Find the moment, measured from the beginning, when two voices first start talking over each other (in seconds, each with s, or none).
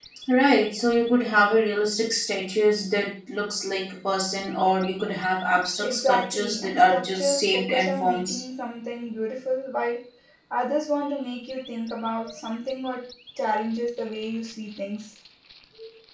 5.8 s